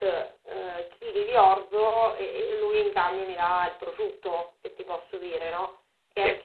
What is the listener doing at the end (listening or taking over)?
listening